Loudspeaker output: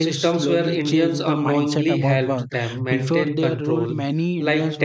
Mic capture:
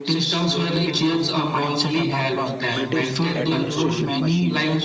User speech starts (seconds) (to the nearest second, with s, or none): 3 s